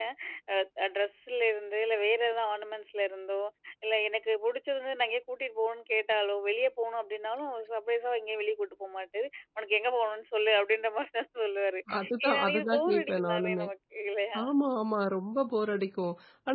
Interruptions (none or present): present